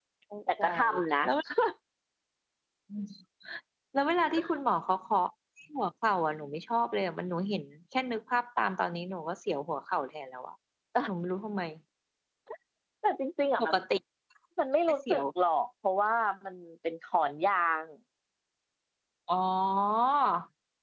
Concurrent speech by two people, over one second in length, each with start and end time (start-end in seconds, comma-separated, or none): none